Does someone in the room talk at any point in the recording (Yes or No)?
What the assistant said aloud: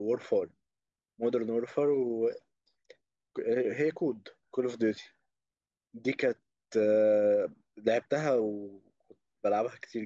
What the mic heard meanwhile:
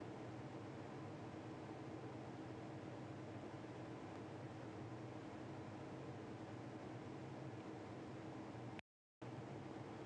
No